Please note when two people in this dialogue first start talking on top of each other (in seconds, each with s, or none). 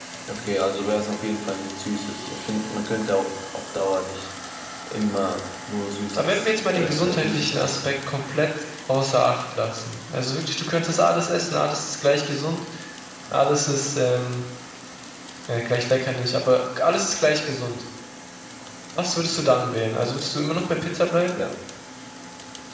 6.1 s